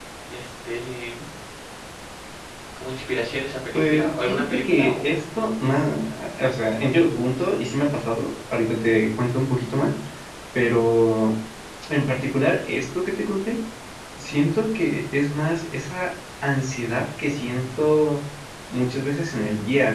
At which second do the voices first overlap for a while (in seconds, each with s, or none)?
3.7 s